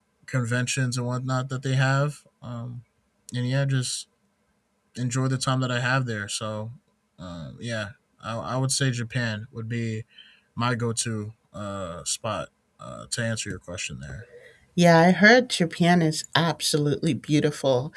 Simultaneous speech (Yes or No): No